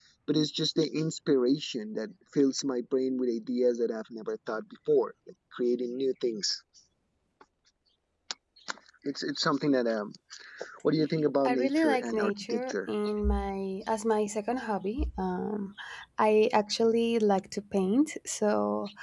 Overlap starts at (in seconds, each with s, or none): 11.4 s